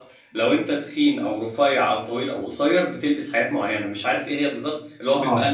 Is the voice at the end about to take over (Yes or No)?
No